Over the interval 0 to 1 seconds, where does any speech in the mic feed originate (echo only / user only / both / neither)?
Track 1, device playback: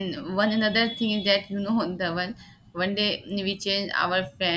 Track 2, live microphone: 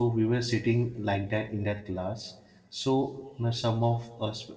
user only